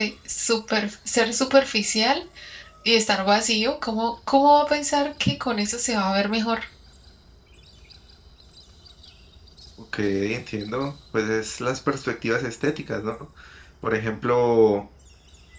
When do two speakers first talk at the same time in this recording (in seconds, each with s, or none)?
none